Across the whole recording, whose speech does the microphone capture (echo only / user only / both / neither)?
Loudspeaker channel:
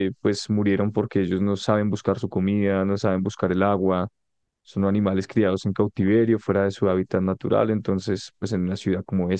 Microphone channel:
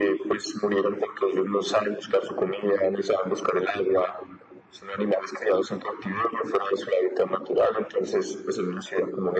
echo only